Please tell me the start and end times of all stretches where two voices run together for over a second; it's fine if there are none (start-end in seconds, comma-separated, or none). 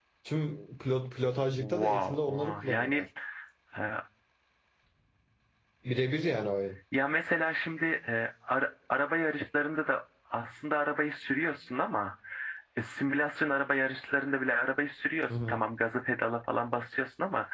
1.6-3.0